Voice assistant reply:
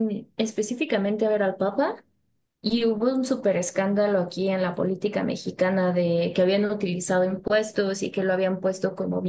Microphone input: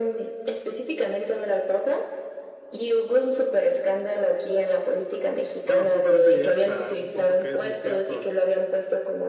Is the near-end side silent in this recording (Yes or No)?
No